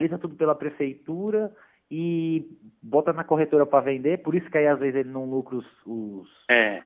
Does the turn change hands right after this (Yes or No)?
No